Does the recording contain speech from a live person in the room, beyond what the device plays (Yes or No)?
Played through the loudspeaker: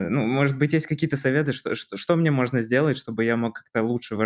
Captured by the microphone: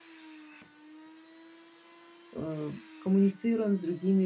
Yes